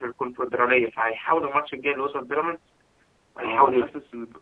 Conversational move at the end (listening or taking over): taking over